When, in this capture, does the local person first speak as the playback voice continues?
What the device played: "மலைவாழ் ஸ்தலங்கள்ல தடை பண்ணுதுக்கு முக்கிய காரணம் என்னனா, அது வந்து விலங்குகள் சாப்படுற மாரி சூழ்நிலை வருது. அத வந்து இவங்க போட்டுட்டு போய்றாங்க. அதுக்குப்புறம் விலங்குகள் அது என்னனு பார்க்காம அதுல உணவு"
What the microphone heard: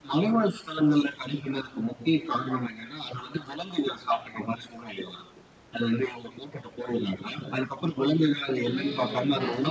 8.7 s

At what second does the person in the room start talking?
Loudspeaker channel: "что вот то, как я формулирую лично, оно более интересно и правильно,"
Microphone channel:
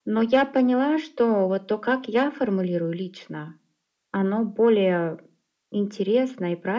none

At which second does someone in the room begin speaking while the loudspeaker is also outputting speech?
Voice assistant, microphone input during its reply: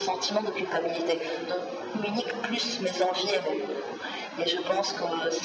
none

